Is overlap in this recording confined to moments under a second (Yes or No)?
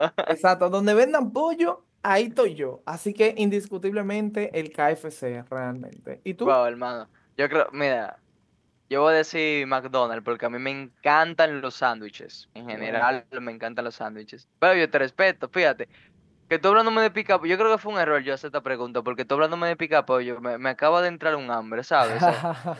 Yes